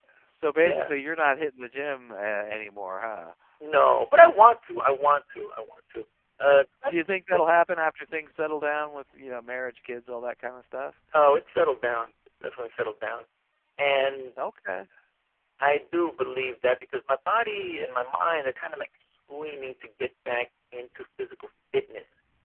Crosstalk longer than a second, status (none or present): none